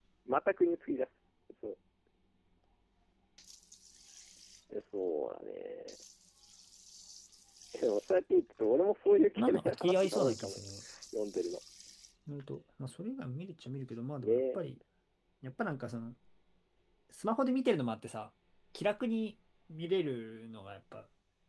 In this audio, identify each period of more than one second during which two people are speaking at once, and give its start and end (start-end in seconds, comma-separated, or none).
9.4-10.6